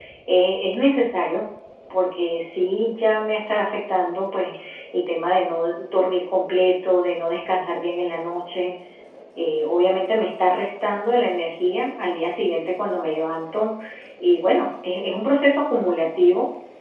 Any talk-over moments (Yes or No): No